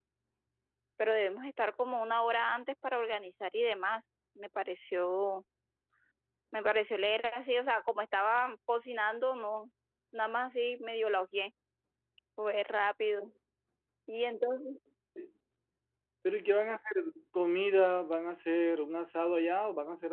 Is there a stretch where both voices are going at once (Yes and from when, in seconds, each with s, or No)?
No